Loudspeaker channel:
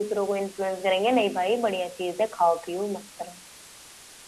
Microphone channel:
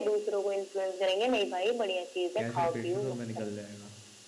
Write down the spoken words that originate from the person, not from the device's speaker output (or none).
कैंसर पेशेंटों में निकल जाएगा